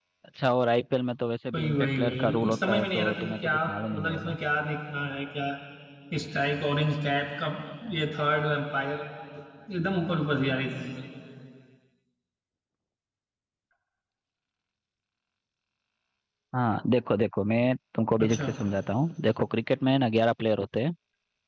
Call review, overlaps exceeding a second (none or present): present